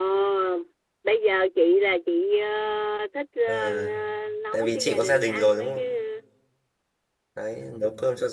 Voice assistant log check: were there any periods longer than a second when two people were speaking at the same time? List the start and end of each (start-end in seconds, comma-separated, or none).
4.5-5.8